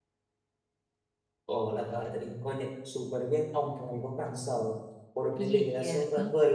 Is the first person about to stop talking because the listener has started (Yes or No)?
No